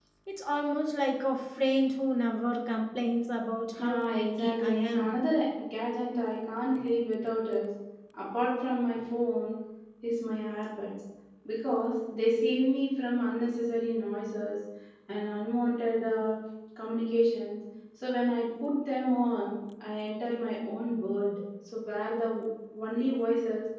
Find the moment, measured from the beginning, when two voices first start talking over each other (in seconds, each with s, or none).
3.8 s